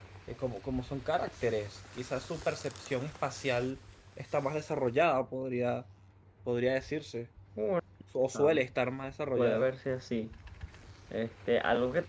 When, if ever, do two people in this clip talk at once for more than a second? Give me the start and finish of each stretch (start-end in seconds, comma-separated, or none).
none